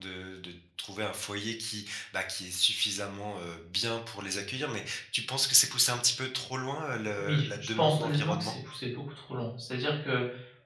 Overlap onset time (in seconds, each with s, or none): 7.2 s